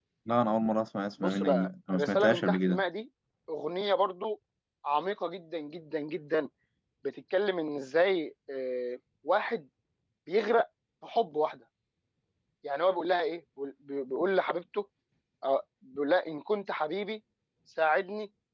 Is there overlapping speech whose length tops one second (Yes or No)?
Yes